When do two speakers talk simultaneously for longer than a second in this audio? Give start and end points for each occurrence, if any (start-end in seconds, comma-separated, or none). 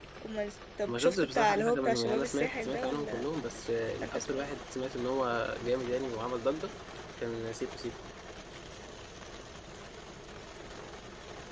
0.9-3.2